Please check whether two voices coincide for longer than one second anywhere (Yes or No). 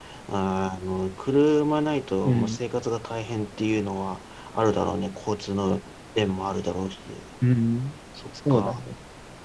No